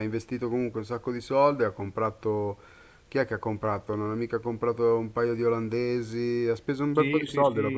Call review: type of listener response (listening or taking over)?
taking over